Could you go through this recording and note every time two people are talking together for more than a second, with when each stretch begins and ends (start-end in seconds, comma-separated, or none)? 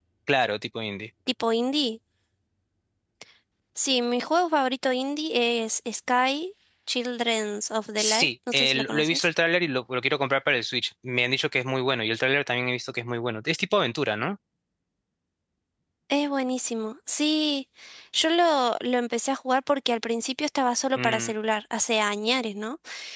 8.0-9.3